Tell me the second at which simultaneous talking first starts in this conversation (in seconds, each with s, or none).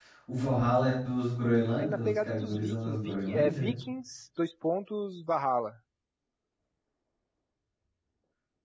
1.8 s